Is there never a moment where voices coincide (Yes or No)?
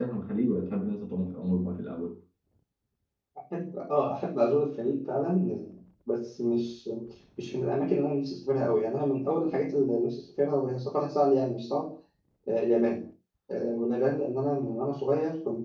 Yes